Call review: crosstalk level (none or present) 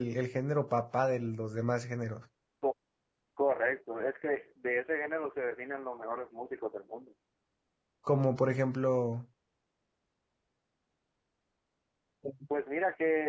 none